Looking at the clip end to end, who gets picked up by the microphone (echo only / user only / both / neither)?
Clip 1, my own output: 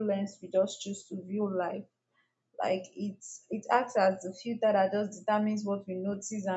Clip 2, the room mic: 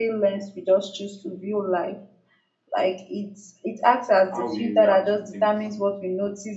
both